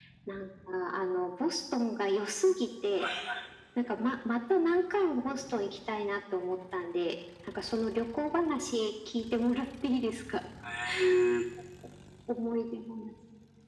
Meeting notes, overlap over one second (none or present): none